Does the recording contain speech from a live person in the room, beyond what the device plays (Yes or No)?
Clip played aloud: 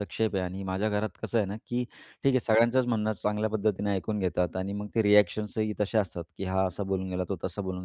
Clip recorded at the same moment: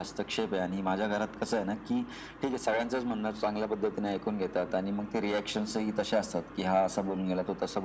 No